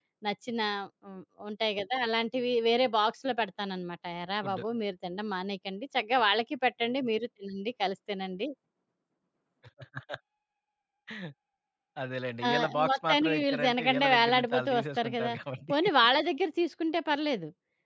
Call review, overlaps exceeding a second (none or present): present